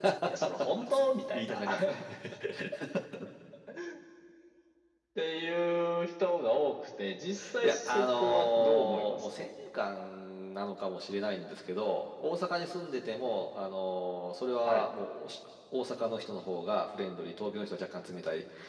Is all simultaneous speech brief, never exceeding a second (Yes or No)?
No